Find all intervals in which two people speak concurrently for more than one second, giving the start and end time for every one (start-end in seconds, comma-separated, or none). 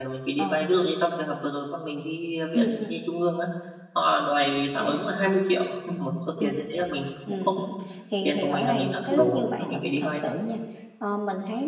8.2-10.2